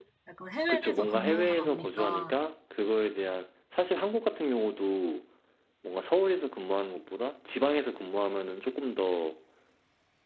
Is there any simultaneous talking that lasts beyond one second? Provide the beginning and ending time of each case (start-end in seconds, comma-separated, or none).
0.7-2.3